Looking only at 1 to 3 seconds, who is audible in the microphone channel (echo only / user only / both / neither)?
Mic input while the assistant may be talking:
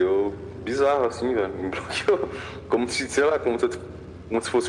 echo only